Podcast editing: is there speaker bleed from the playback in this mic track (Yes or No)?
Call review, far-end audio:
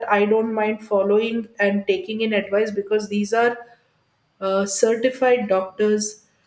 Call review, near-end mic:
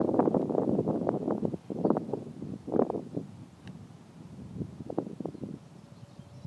No